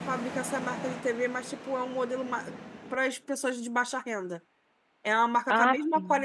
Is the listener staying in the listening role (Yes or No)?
Yes